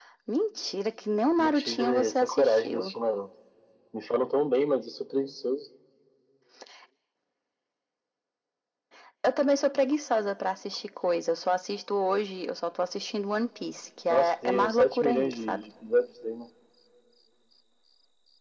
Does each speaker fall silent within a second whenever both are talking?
No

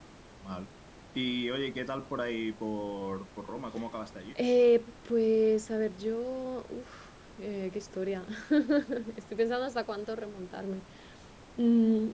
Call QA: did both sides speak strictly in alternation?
Yes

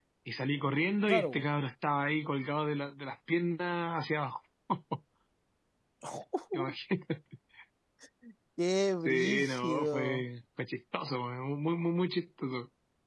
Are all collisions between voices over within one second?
No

